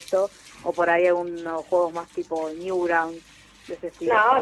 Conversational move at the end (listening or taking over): taking over